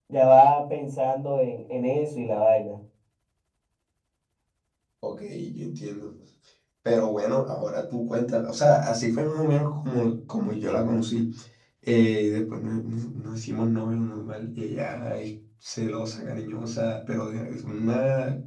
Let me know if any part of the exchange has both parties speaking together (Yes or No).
No